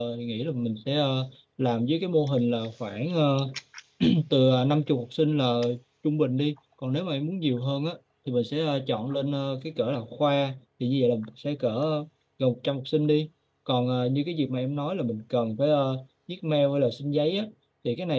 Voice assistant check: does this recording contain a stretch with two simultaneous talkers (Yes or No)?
No